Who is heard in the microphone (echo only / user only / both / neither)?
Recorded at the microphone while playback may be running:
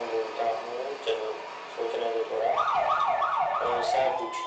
echo only